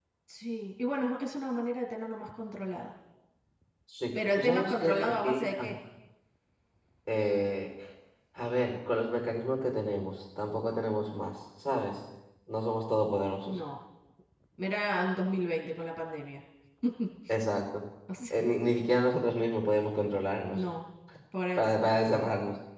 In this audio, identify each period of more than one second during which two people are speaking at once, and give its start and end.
4.4-5.7

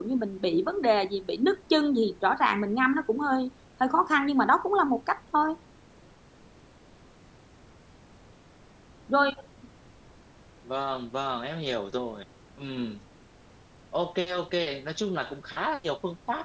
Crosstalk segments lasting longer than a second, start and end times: none

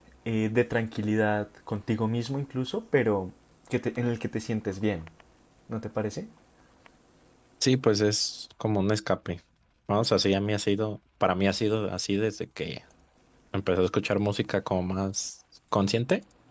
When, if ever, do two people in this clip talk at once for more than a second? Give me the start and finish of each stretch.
none

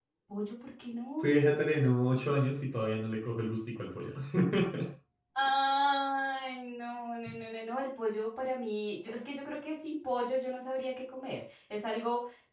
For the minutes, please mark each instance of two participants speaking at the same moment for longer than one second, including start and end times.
none

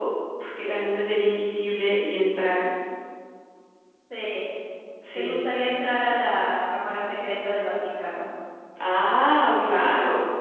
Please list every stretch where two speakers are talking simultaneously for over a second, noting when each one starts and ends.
none

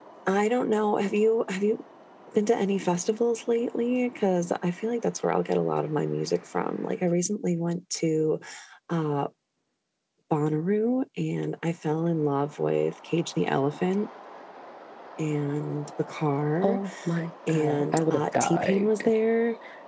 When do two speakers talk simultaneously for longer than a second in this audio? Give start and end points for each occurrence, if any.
17.5-19.1

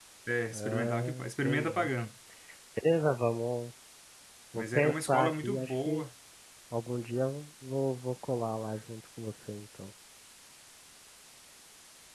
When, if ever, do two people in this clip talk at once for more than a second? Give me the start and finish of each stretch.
0.5-1.9, 4.5-6.0

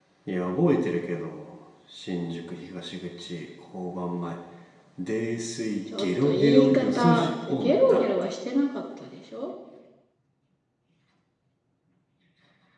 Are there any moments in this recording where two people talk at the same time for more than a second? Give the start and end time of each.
6.0-8.0

